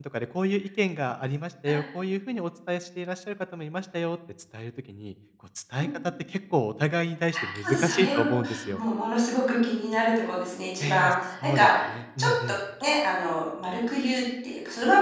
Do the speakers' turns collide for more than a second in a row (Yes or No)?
Yes